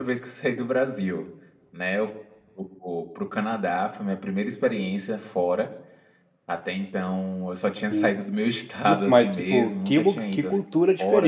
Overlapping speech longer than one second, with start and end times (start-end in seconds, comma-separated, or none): 8.9-10.6